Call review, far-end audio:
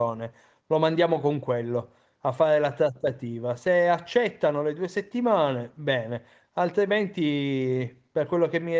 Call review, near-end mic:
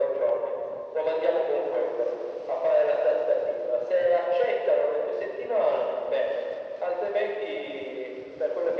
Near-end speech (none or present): none